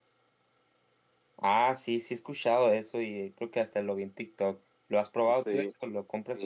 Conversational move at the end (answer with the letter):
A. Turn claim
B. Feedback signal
A